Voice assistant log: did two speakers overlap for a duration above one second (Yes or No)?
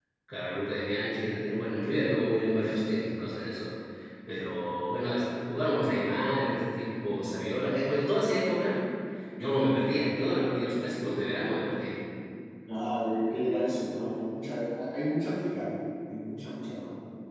No